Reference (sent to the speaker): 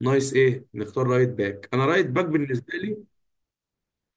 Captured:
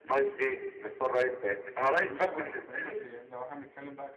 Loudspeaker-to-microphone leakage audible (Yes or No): Yes